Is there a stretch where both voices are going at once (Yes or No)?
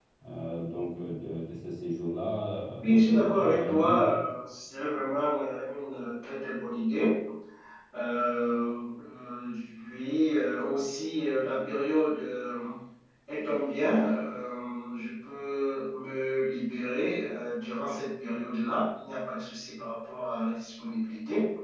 Yes